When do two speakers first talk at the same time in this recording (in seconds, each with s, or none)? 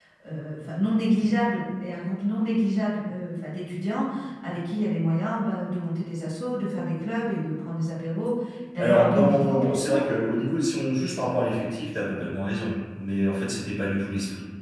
8.8 s